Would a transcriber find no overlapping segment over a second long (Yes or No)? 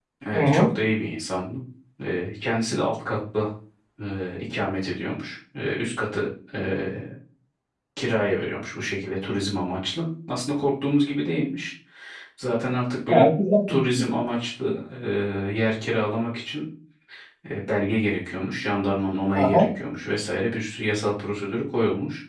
Yes